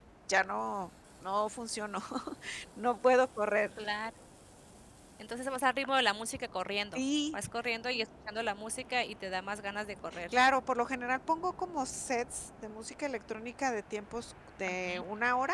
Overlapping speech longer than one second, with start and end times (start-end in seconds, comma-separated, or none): none